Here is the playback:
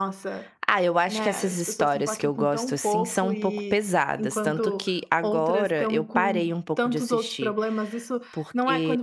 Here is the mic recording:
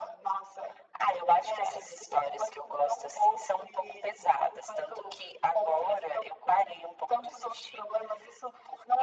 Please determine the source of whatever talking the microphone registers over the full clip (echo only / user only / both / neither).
echo only